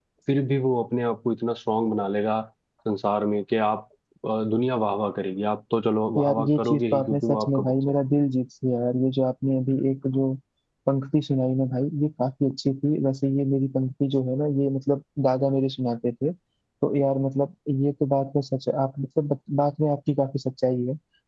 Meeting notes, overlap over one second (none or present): present